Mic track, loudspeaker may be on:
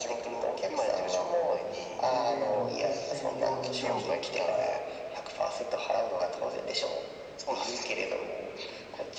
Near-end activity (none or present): present